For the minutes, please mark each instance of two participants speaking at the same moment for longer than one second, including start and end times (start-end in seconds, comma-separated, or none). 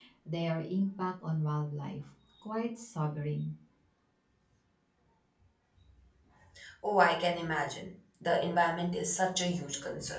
none